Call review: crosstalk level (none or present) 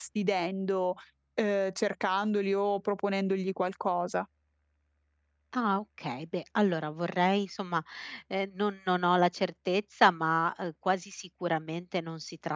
none